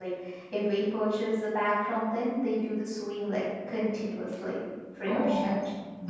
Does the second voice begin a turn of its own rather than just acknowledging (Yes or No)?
Yes